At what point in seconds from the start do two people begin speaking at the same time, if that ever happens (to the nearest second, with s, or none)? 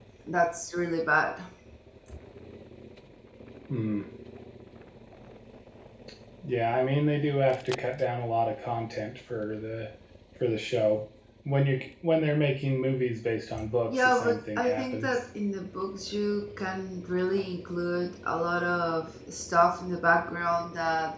14 s